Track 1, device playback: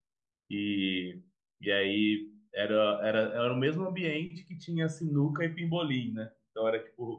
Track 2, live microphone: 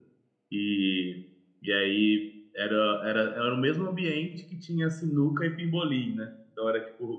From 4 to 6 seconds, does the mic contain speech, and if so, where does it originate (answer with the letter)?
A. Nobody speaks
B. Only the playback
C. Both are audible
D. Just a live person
B